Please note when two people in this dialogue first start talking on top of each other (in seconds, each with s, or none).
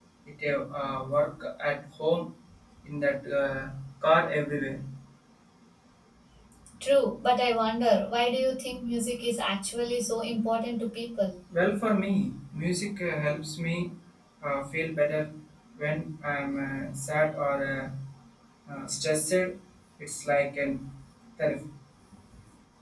none